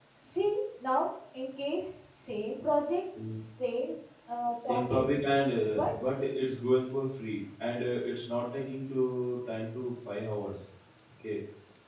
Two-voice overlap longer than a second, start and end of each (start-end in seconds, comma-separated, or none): none